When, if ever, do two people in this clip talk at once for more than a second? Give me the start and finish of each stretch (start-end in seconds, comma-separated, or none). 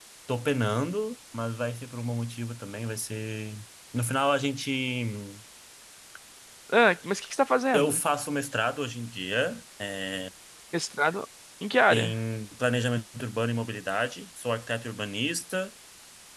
none